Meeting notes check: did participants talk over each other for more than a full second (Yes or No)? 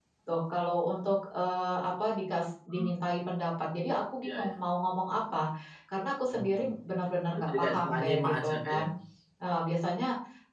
Yes